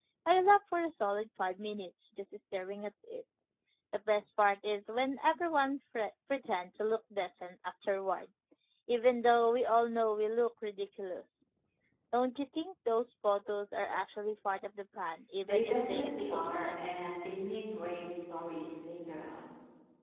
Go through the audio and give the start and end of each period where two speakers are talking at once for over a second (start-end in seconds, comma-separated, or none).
15.4-16.9